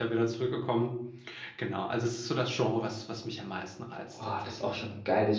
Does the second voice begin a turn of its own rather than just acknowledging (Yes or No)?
Yes